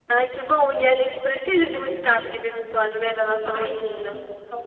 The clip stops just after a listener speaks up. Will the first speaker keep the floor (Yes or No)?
No